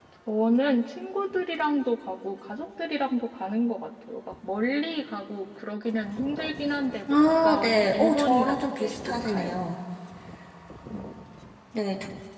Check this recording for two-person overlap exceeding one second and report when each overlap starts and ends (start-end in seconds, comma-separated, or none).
7.1-9.5